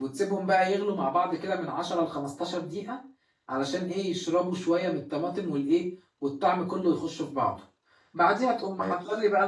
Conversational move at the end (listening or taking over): listening